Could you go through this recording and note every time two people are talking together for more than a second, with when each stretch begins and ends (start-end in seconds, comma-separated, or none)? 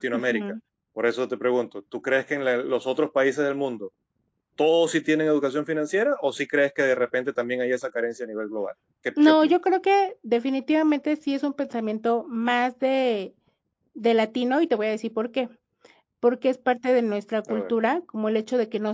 none